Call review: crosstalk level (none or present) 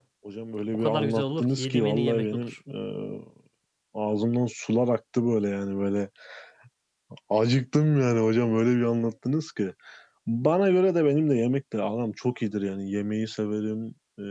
present